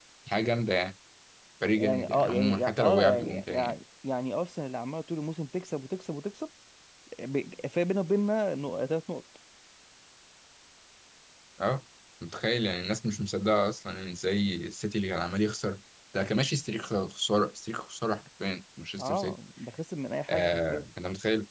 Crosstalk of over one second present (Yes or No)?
Yes